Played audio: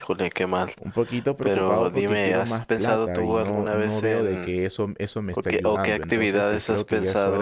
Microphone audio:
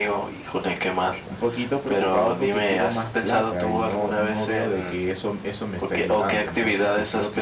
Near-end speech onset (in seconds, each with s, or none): none